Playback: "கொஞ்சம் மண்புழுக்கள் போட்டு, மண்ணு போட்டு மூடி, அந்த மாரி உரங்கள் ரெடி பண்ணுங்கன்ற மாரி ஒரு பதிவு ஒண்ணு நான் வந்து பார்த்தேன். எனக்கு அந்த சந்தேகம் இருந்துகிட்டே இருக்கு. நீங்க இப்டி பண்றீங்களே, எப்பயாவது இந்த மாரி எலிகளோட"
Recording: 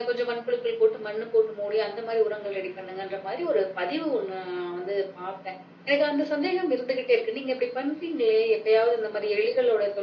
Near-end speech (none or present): none